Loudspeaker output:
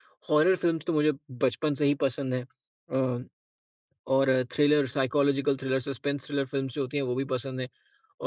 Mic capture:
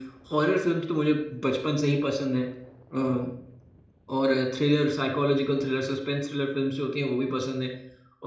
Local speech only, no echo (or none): none